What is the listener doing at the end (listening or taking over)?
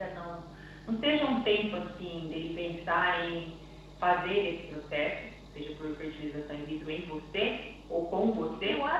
taking over